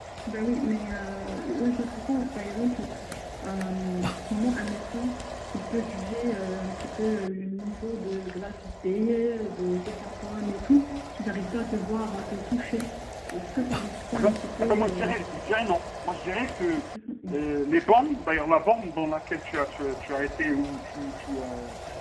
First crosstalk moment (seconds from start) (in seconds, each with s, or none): 14.1 s